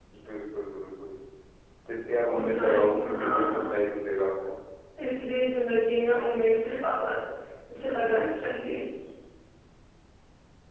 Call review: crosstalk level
present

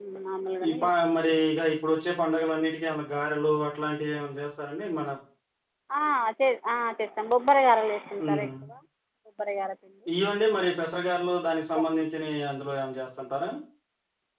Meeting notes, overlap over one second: none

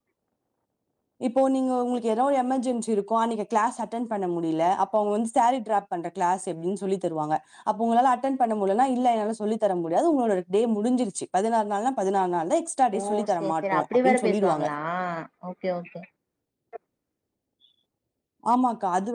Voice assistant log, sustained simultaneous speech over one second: present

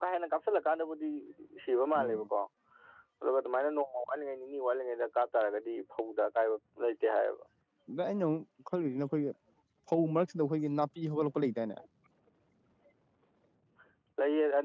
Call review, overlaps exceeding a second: none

